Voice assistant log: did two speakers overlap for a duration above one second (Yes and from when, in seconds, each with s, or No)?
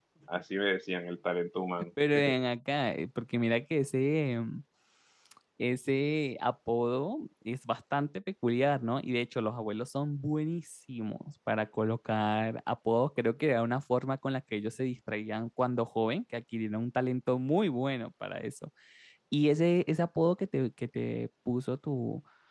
No